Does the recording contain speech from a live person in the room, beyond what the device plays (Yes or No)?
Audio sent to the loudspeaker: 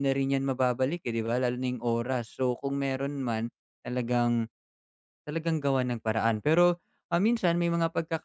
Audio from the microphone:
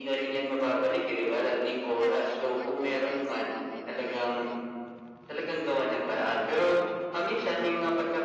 Yes